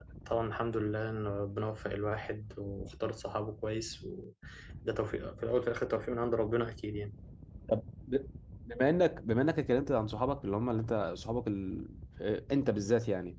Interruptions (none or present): none